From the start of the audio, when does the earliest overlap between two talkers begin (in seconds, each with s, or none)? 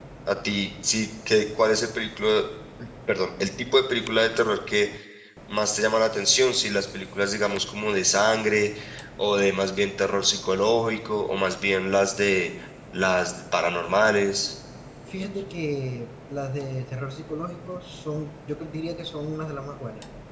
none